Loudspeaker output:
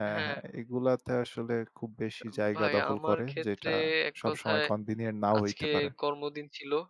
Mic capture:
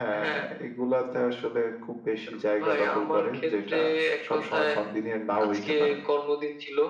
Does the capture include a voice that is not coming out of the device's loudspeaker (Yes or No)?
No